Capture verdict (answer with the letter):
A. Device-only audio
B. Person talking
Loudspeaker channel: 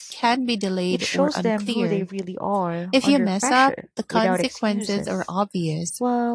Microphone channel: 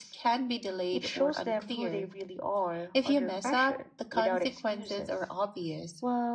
A